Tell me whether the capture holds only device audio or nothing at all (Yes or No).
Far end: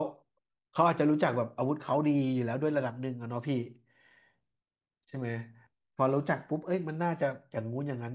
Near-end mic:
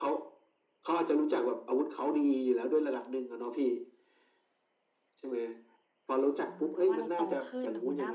No